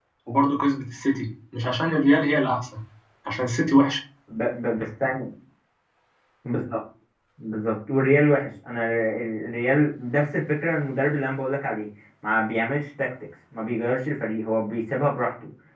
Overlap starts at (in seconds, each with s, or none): none